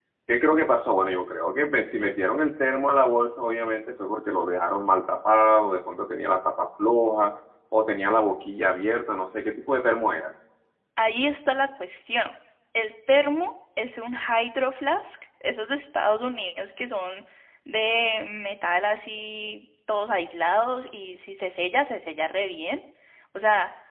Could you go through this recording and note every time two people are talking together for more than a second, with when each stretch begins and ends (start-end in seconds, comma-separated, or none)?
none